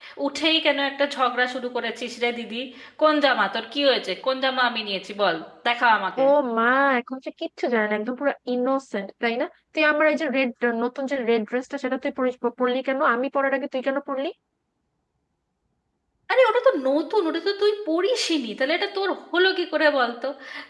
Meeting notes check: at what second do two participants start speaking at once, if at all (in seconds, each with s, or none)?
none